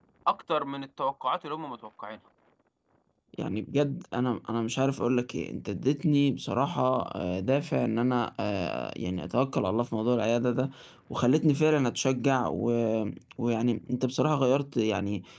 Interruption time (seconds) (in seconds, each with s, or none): none